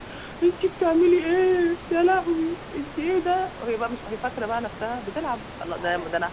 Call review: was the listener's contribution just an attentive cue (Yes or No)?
Yes